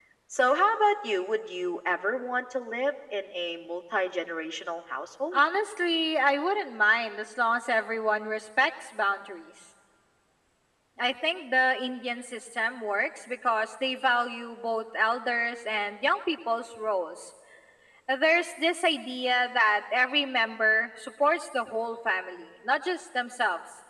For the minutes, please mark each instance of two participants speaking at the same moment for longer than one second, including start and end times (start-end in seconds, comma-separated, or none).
none